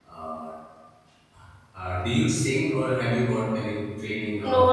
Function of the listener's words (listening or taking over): taking over